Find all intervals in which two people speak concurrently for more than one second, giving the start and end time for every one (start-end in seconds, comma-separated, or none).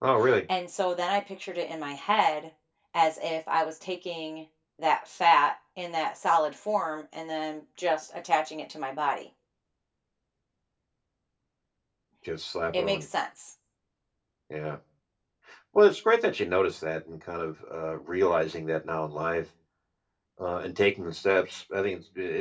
none